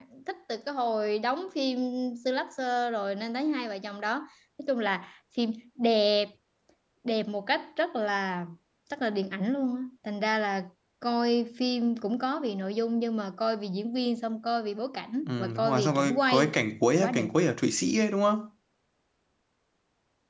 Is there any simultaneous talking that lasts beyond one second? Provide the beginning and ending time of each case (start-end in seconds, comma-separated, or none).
15.3-16.5